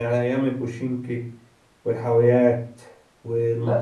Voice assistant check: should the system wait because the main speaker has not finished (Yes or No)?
No